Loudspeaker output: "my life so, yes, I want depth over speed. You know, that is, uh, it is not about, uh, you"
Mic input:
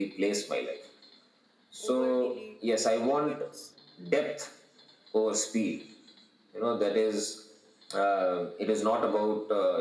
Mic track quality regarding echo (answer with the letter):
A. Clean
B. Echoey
B